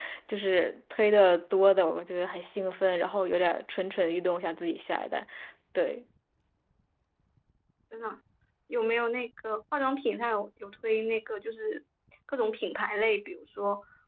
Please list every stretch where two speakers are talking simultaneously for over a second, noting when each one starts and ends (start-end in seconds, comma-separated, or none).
none